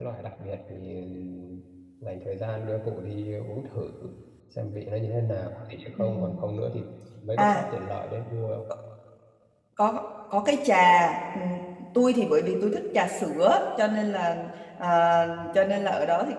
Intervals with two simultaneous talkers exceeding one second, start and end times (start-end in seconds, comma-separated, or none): none